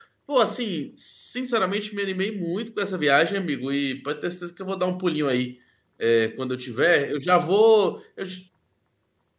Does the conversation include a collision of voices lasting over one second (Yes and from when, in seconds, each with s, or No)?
No